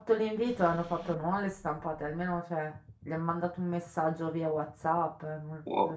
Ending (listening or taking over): taking over